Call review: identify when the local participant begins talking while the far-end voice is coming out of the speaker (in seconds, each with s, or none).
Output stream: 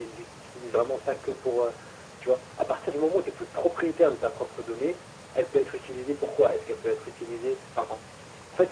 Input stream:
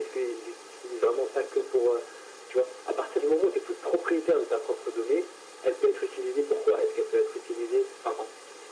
none